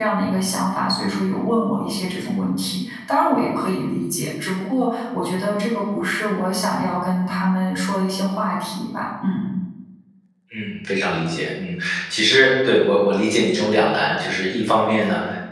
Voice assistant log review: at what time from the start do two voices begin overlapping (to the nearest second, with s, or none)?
none